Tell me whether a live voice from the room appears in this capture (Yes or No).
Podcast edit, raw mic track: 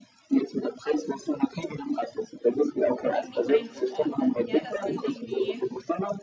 Yes